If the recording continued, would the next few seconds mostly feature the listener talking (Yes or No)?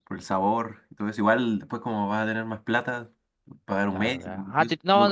Yes